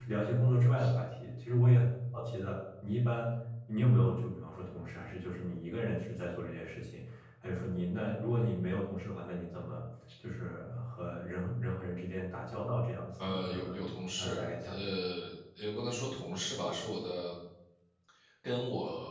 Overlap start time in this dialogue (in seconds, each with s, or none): 13.2 s